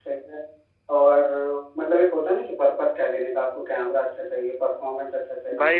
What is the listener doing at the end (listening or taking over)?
taking over